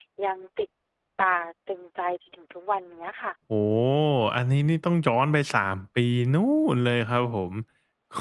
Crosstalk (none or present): none